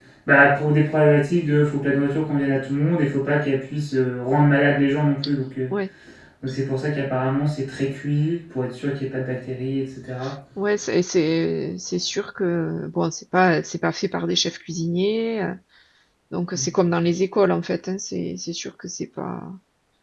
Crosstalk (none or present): none